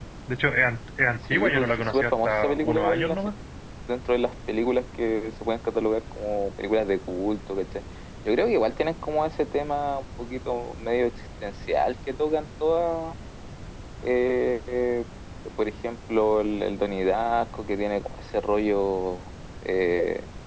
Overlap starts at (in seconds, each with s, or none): 1.3 s